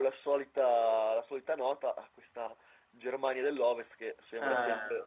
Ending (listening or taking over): listening